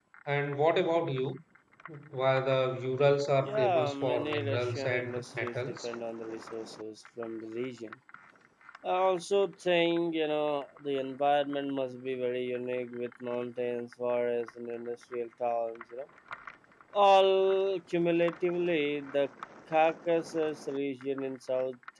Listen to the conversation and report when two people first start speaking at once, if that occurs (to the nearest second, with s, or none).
3 s